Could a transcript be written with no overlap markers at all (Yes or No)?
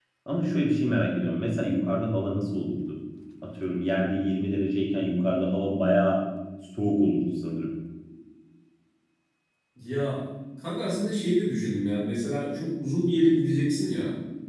Yes